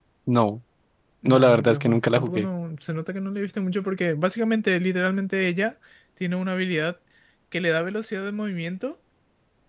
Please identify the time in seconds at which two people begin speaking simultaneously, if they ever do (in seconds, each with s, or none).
1.2 s